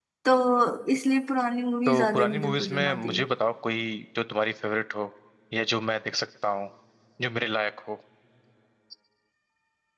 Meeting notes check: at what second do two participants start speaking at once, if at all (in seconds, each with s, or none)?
1.9 s